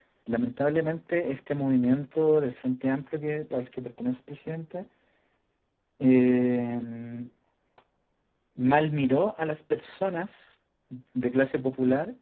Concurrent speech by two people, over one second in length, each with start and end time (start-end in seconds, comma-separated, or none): none